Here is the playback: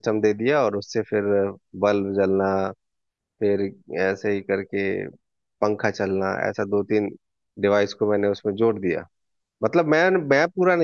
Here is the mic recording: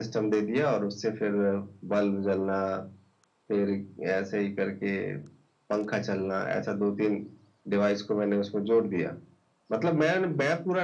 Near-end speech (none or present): none